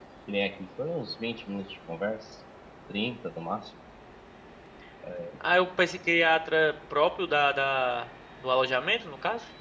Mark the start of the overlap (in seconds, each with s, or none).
none